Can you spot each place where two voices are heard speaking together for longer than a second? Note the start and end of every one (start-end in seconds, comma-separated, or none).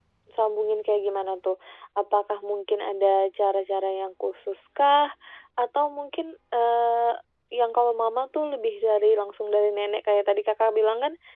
none